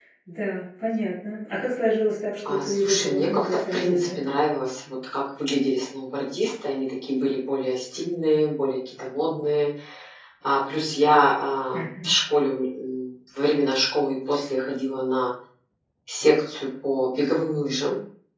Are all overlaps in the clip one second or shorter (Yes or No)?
No